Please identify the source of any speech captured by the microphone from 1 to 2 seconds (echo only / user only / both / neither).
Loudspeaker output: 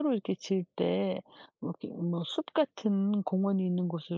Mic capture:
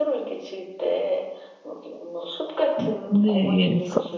echo only